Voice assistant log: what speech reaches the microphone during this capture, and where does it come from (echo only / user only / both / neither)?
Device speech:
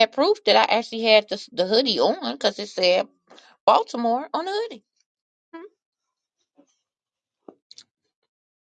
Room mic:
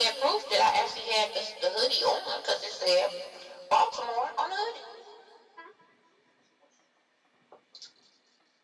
echo only